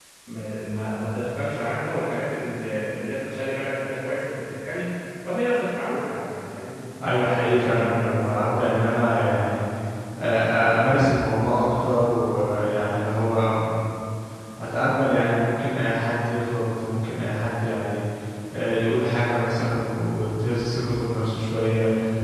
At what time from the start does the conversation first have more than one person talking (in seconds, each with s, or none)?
7.2 s